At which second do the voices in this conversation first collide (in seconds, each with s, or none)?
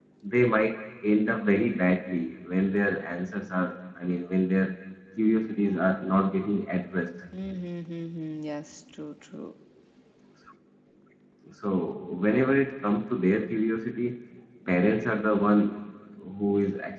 none